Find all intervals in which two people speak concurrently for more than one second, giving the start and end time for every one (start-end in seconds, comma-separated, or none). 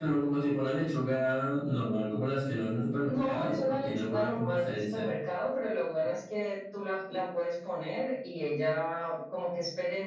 3.0-5.1